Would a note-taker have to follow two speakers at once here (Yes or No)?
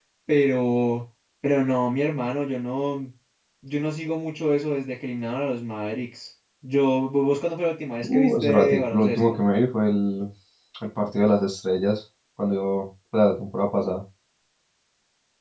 Yes